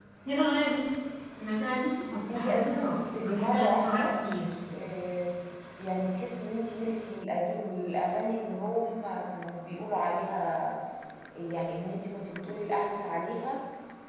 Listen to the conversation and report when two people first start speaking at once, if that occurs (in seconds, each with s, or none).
2.3 s